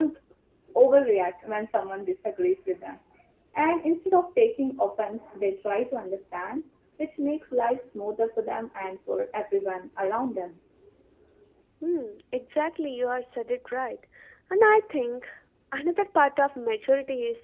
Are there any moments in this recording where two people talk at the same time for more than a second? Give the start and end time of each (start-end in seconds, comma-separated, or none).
none